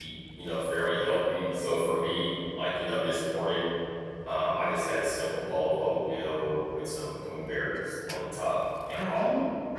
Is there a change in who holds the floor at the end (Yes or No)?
Yes